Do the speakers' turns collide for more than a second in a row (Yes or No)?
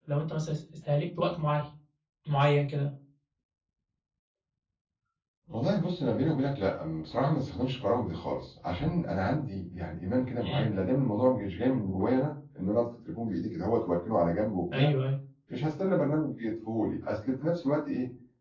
No